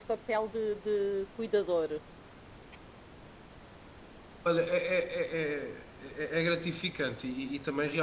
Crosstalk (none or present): none